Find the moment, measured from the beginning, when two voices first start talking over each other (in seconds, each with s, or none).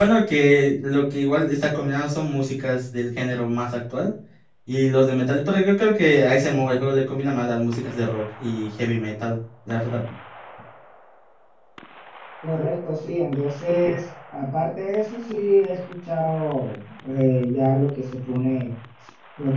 none